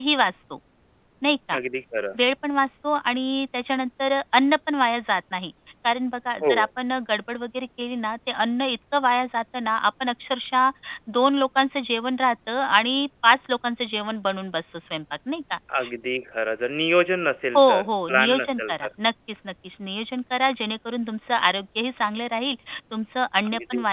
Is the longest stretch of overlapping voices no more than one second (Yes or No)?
No